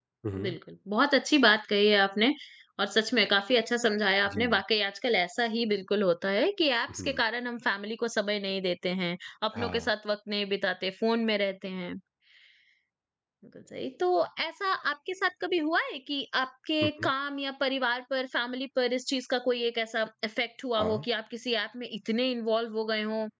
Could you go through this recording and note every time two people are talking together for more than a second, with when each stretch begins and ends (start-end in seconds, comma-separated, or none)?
none